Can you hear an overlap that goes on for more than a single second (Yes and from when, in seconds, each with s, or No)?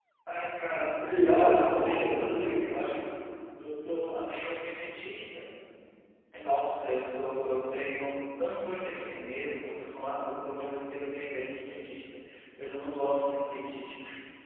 Yes, from 1.0 s